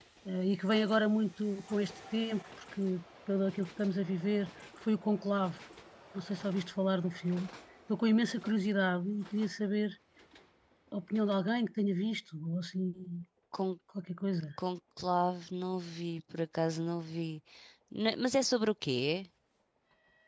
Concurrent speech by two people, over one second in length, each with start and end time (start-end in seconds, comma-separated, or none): none